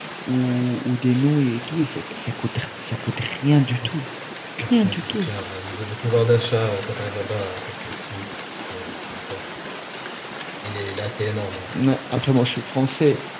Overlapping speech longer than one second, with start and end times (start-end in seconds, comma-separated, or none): none